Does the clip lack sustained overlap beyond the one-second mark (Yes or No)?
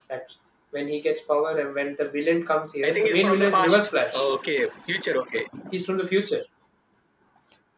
No